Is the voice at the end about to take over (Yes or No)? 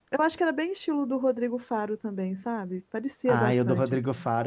Yes